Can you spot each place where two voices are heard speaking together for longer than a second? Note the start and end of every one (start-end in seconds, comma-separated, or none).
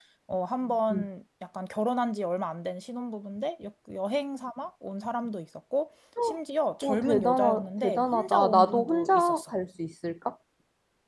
6.8-9.5